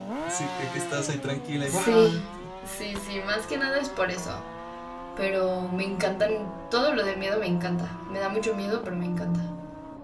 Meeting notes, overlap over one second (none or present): none